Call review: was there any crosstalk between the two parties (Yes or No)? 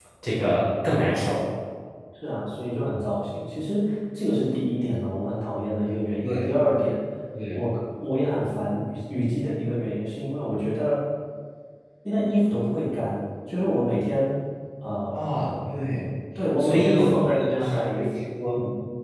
Yes